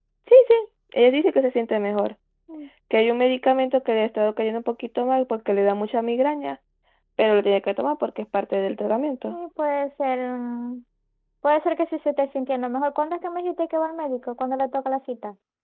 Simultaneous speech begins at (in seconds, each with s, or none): none